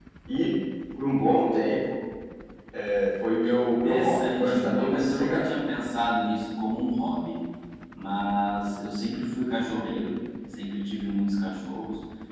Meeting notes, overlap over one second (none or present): present